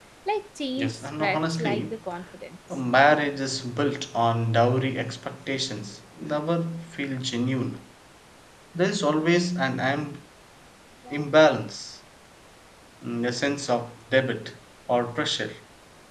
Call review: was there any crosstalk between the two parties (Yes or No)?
Yes